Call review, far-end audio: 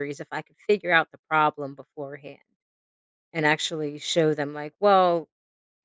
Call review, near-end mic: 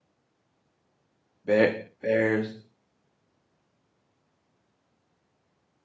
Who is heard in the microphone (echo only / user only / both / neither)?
user only